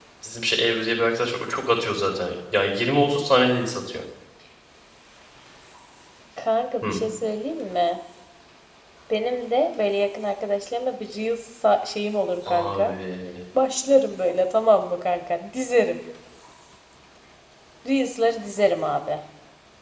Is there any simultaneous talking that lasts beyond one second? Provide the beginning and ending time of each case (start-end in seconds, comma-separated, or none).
none